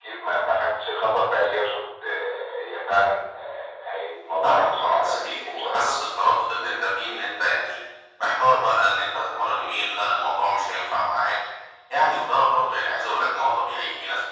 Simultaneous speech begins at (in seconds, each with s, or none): 4.4 s